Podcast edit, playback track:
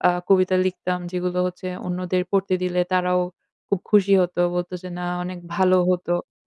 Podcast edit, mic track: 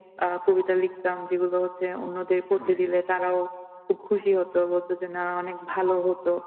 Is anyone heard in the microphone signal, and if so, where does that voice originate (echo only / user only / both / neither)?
both